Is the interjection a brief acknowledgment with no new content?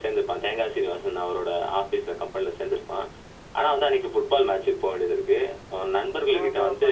Yes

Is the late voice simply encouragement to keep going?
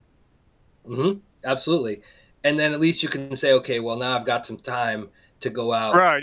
No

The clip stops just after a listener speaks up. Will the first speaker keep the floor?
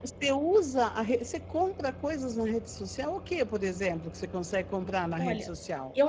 No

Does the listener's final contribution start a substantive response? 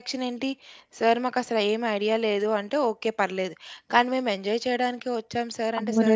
Yes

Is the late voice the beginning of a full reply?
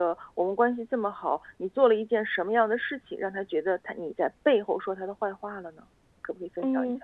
Yes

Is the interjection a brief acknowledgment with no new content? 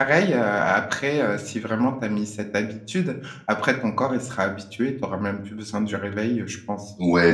No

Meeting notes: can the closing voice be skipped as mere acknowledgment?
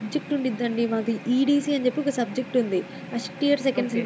Yes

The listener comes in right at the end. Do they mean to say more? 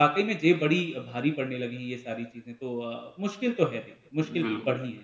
Yes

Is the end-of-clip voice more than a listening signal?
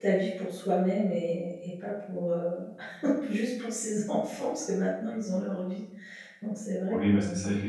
Yes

